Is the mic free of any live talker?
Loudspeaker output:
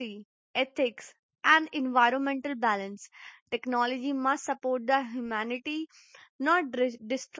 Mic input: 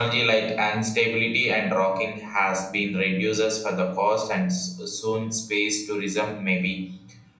No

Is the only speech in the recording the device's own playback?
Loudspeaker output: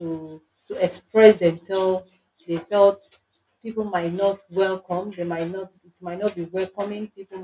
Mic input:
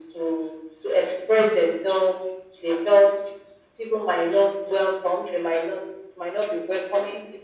Yes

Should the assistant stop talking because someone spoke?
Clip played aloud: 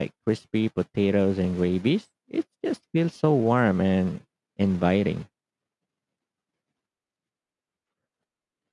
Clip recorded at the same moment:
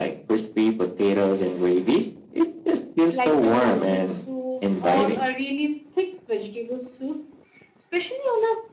Yes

